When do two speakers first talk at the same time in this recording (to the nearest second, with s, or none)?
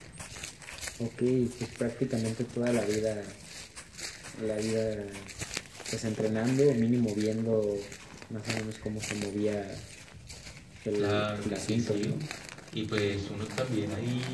11 s